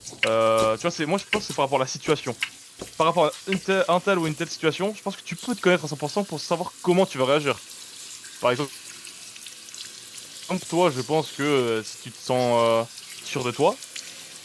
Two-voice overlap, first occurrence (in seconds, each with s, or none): none